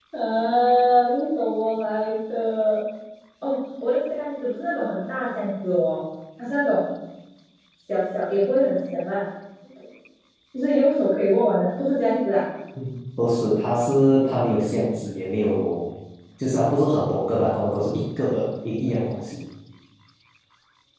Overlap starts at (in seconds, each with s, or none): none